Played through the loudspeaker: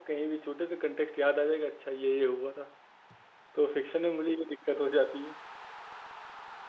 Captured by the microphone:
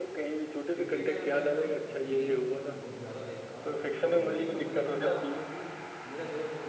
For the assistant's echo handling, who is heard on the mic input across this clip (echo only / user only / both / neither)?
both